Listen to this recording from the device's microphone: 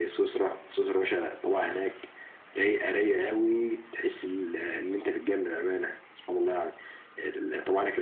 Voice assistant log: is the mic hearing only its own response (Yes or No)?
Yes